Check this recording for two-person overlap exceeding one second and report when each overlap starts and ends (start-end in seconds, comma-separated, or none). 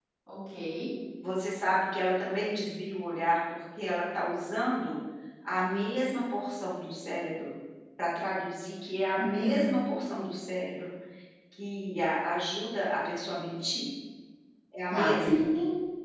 none